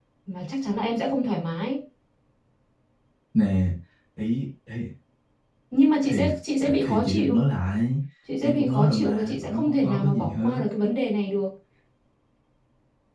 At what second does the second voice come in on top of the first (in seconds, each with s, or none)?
6.0 s